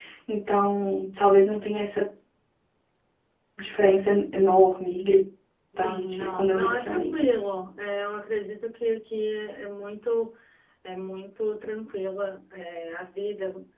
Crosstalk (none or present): present